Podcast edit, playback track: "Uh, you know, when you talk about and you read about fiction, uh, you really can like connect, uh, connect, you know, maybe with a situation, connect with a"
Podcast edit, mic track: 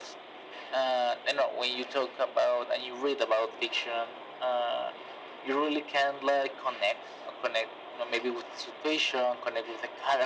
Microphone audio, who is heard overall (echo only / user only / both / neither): echo only